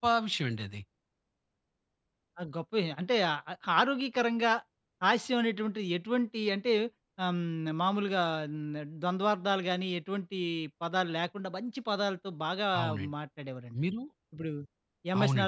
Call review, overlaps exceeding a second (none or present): none